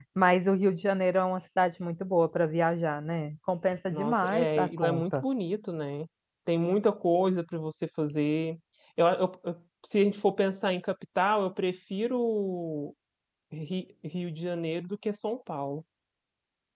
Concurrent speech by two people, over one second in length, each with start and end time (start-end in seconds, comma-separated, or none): 3.9-5.2